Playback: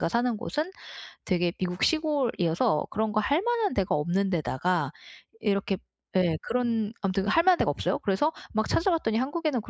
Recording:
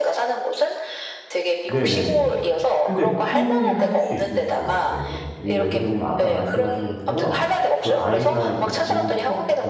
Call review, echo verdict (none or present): present